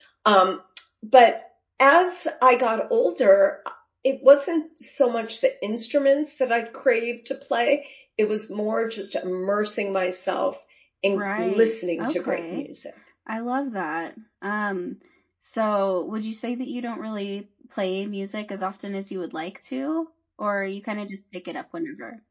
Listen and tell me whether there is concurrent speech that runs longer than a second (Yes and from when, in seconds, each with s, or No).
Yes, from 11.1 s